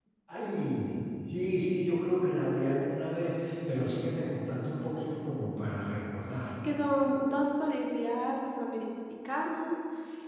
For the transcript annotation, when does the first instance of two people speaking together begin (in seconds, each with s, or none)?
none